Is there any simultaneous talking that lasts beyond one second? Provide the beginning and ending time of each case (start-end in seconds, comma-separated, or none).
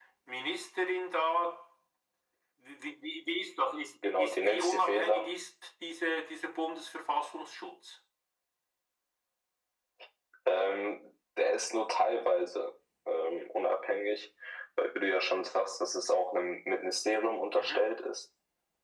4.0-5.3